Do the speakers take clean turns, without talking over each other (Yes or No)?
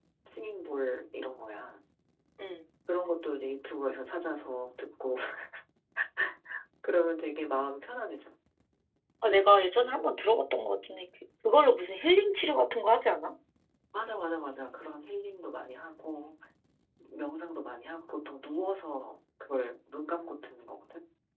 Yes